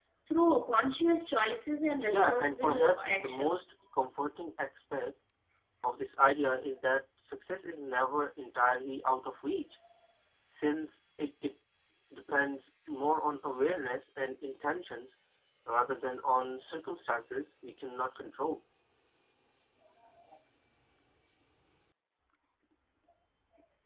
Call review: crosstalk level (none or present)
present